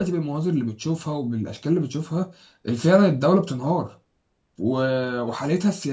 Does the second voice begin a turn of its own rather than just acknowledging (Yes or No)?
No